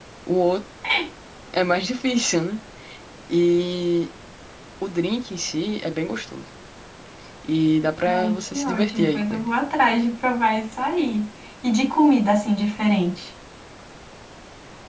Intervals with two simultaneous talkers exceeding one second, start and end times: 8.0-9.5

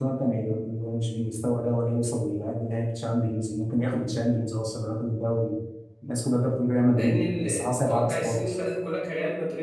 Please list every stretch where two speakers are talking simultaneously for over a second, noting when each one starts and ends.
7.0-8.6

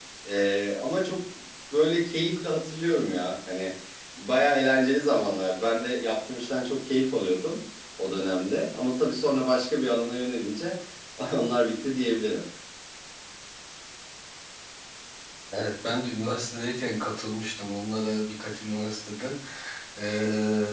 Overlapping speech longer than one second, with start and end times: none

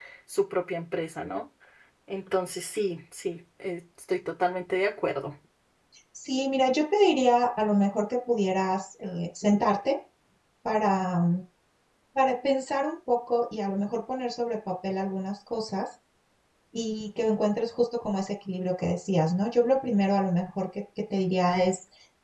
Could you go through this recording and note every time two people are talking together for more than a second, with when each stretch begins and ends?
none

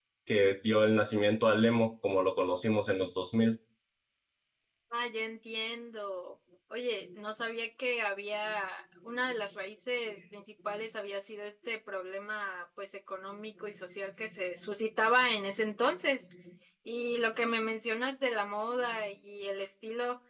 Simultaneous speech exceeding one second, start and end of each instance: none

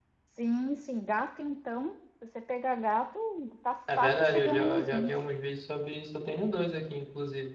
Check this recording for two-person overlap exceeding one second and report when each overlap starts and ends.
4.0-5.2

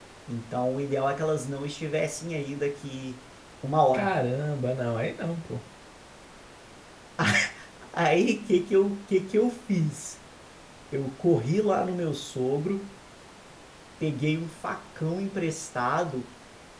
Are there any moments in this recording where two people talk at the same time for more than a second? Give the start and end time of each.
none

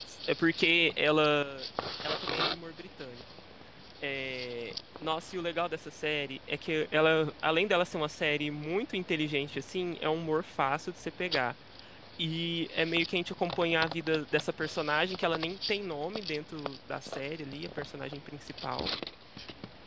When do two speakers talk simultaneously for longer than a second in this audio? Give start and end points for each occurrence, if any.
none

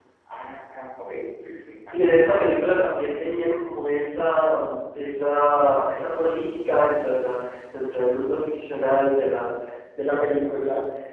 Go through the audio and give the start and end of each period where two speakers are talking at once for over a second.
none

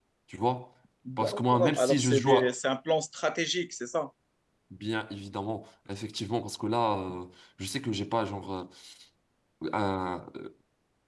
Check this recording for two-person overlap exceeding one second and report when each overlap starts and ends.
1.2-2.5

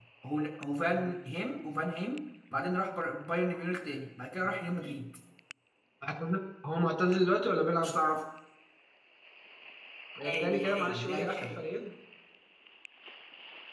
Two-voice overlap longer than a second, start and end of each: 10.2-11.6

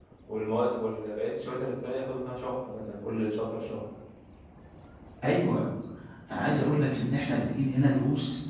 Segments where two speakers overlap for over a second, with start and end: none

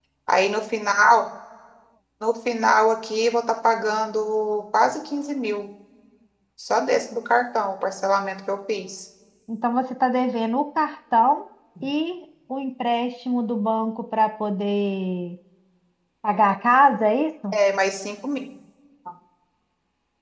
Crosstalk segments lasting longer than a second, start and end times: none

